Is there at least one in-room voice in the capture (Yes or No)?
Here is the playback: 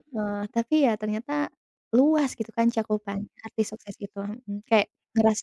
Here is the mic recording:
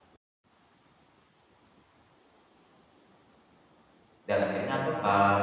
Yes